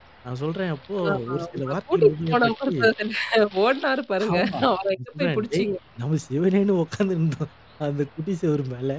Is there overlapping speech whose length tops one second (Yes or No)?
Yes